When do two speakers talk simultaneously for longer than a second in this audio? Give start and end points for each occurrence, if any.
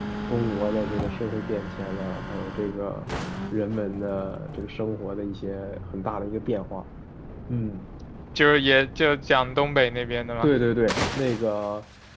none

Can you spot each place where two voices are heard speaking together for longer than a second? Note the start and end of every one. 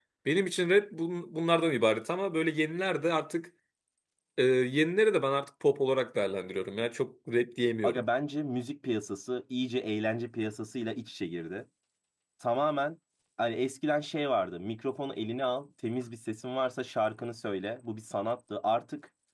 none

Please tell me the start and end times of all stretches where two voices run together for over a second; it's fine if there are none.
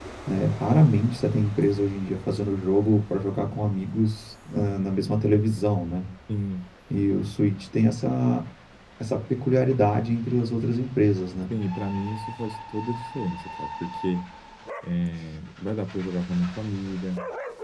none

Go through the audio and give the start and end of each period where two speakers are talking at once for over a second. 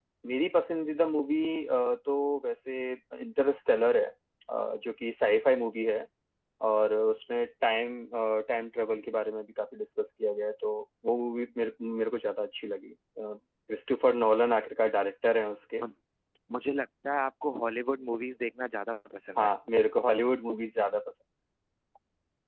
none

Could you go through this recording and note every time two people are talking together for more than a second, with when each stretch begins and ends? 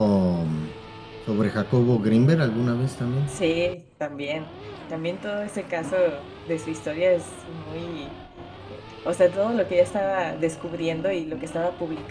none

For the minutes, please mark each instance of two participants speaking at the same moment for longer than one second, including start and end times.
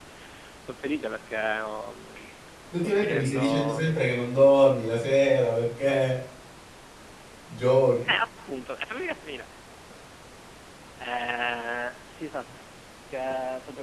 2.8-4.0

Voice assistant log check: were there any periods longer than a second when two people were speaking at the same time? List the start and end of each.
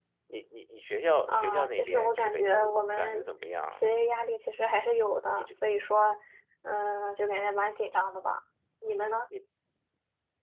1.3-3.3

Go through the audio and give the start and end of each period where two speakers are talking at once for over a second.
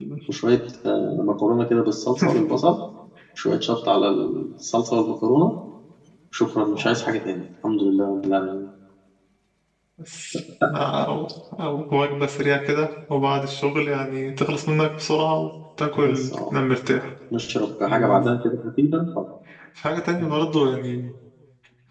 none

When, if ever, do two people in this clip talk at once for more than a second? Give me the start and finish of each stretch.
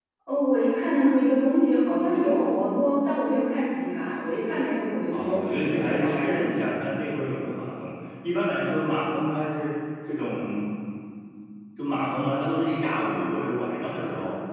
5.1-6.4

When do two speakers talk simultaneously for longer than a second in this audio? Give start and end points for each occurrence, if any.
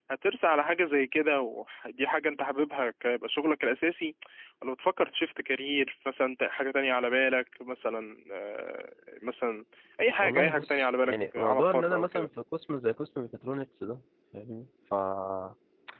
10.2-12.3

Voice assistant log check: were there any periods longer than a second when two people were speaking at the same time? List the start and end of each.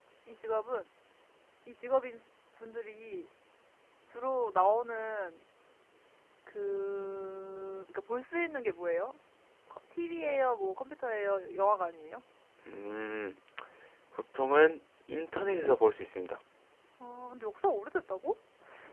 none

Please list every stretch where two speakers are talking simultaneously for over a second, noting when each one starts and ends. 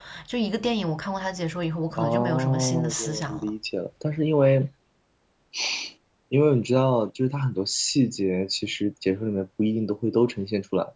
2.0-3.5

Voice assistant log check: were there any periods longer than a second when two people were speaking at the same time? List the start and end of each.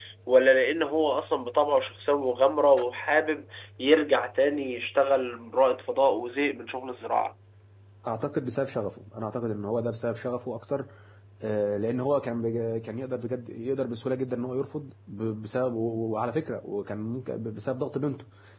none

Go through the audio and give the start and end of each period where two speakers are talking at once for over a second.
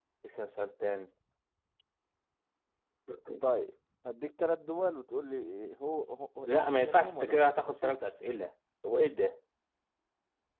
6.5-7.9

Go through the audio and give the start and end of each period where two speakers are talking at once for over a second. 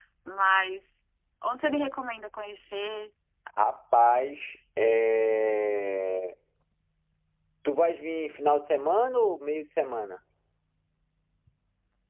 none

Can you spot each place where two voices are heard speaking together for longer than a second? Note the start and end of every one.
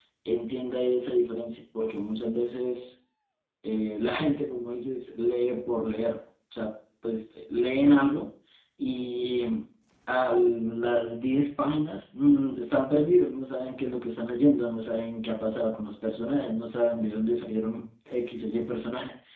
none

